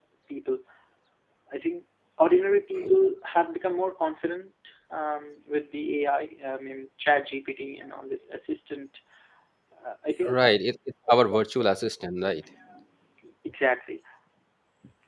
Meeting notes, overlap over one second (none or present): none